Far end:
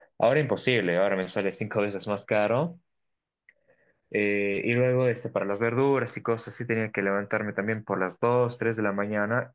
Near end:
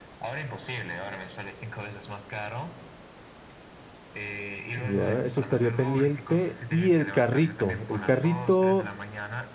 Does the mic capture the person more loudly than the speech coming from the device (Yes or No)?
Yes